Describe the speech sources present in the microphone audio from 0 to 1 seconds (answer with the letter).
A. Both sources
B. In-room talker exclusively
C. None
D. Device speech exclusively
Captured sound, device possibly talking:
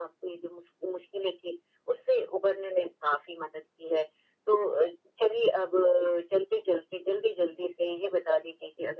D